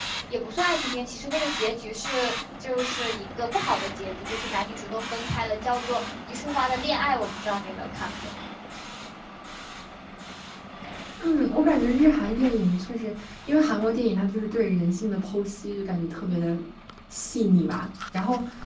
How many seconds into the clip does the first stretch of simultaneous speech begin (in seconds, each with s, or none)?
none